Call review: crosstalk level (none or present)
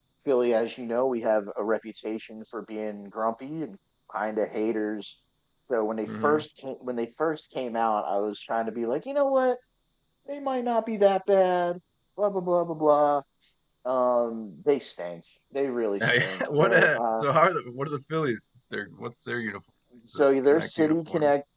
present